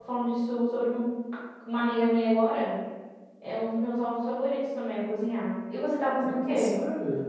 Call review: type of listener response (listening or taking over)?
taking over